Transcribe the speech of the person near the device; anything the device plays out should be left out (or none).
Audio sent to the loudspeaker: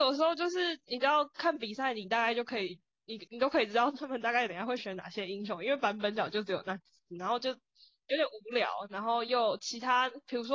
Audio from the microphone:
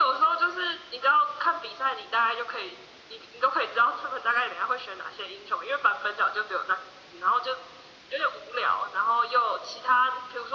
none